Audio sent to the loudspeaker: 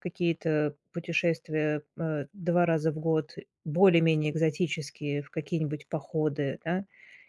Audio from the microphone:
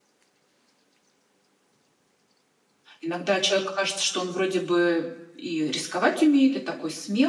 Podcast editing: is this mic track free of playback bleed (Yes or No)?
Yes